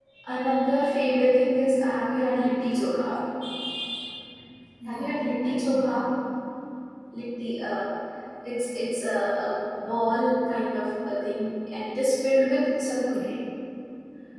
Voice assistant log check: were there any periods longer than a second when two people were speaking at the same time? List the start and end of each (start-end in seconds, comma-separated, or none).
4.8-6.0